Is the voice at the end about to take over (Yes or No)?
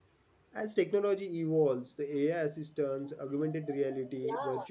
No